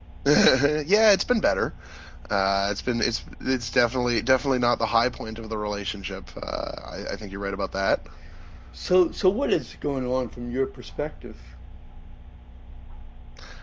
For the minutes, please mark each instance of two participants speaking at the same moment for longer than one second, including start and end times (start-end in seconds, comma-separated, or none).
none